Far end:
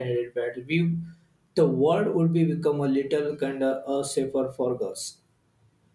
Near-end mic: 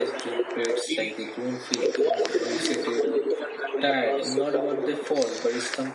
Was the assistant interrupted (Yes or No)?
Yes